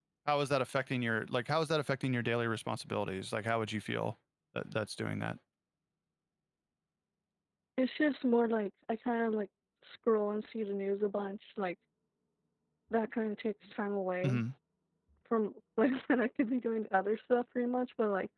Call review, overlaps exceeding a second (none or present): none